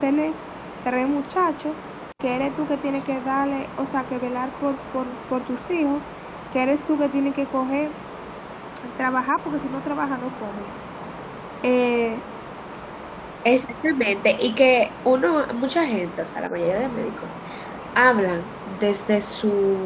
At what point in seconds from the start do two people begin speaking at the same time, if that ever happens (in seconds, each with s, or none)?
none